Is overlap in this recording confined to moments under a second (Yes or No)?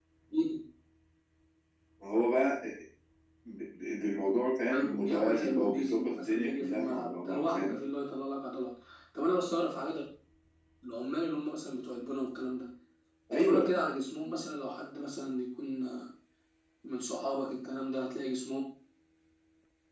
No